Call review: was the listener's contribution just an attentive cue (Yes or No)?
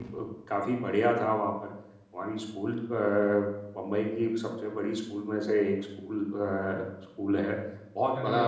Yes